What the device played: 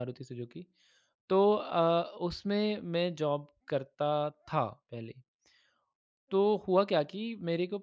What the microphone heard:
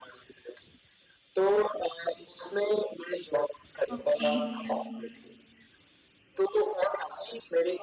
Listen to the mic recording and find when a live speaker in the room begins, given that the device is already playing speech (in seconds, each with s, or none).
4.0 s